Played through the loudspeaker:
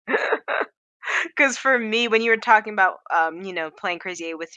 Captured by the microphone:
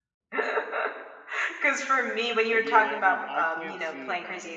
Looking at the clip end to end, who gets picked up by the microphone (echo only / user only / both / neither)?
both